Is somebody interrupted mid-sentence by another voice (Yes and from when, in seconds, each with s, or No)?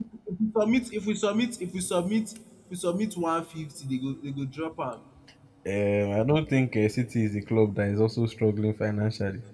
No